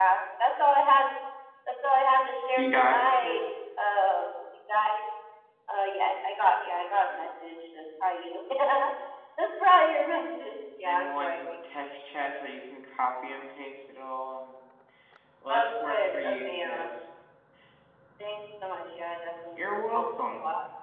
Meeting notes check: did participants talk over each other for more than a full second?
Yes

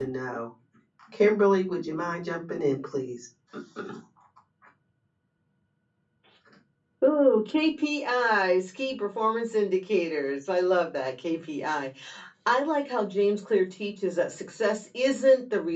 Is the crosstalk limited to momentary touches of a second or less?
Yes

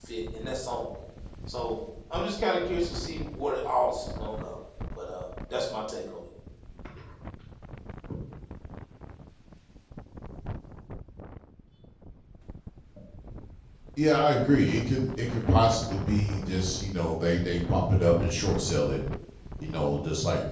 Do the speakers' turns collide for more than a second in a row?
No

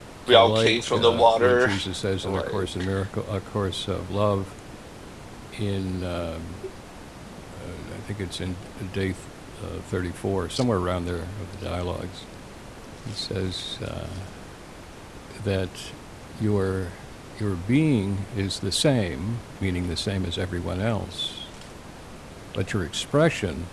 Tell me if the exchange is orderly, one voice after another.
No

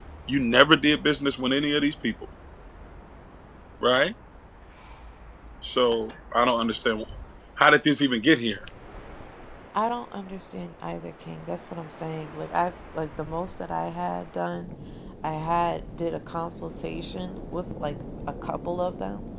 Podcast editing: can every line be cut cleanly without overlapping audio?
Yes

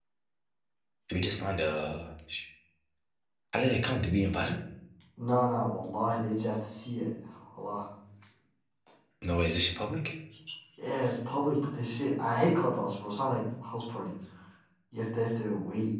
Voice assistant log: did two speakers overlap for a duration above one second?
No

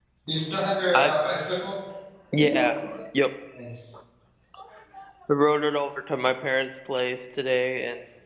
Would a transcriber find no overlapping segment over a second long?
Yes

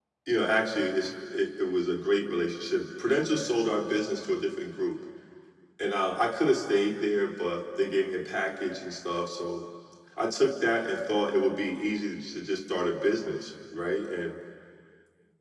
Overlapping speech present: No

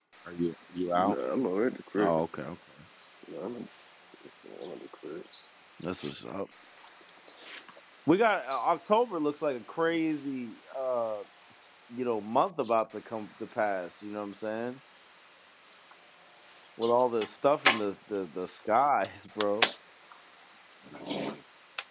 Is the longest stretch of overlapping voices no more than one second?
Yes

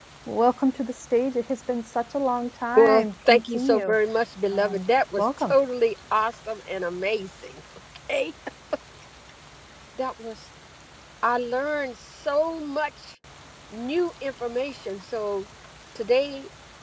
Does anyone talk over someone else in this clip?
Yes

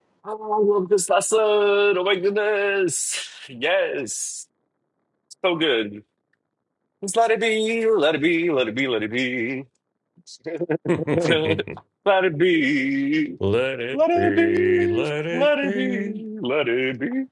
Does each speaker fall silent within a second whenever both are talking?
No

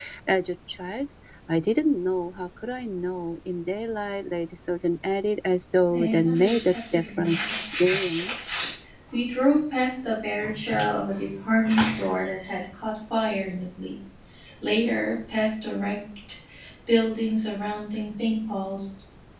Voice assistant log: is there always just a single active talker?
No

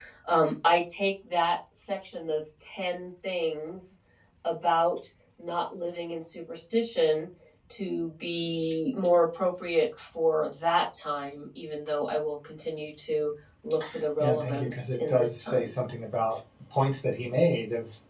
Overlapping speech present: Yes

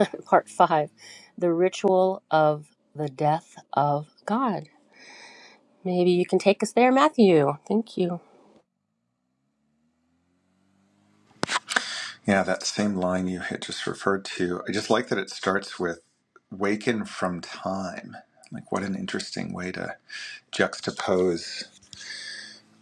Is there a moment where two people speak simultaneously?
No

